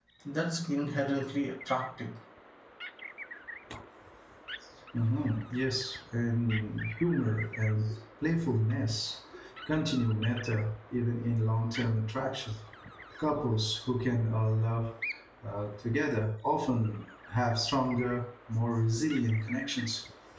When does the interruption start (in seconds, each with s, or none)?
none